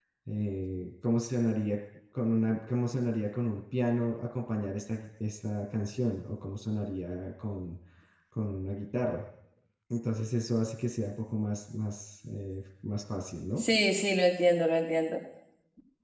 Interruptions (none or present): none